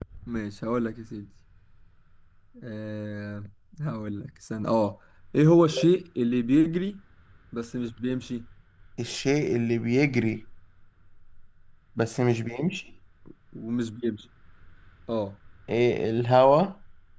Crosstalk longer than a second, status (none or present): none